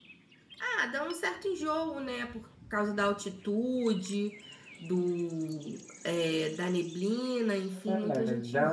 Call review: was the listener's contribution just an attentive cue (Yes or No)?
No